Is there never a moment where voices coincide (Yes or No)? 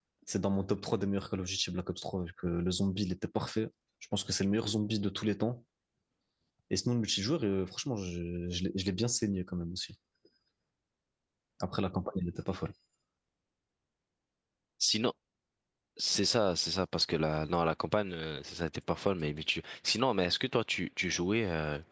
Yes